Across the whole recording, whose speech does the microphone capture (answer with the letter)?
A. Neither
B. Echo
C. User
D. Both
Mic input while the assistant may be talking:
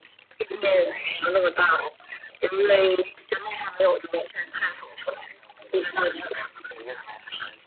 B